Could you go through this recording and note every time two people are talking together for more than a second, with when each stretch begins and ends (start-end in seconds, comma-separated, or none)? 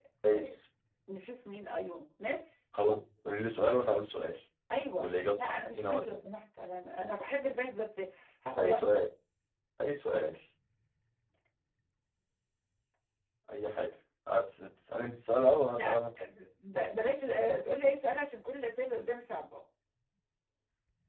5.0-6.2